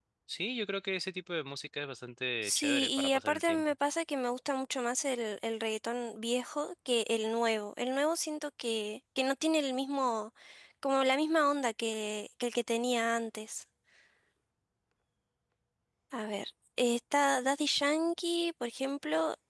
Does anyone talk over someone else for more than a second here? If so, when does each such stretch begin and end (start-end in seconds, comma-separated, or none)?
2.4-3.6